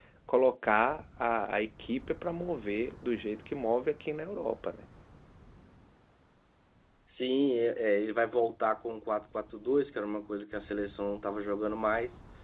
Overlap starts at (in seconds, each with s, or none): none